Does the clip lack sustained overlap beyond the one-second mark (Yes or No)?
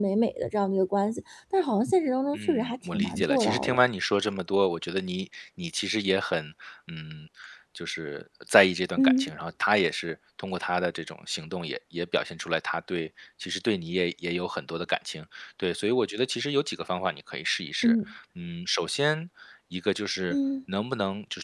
No